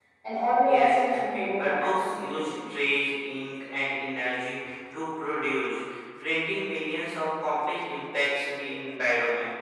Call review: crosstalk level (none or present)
present